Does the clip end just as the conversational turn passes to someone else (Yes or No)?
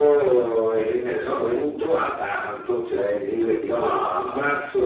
No